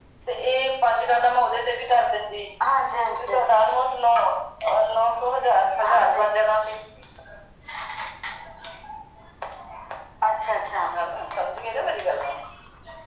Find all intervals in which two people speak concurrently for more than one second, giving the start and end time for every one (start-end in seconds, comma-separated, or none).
none